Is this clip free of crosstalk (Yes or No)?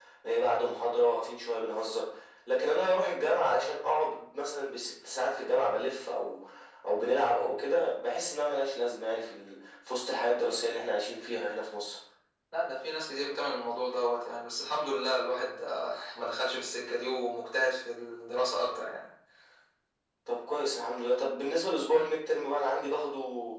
Yes